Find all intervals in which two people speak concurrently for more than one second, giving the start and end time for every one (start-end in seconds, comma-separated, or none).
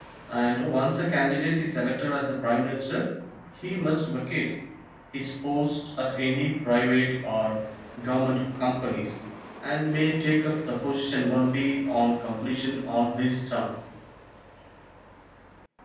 none